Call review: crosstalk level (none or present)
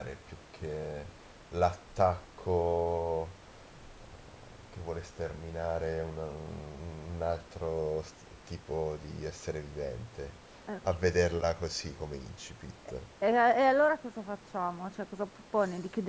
none